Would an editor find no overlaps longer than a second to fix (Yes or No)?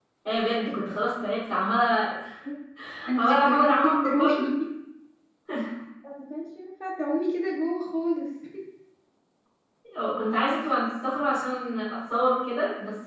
No